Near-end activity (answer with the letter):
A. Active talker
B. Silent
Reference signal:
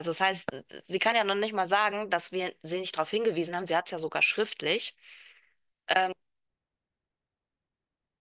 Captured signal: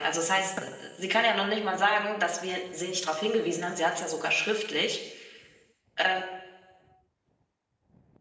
B